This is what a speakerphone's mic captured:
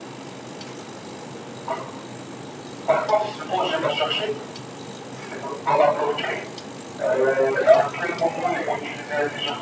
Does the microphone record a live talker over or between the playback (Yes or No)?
No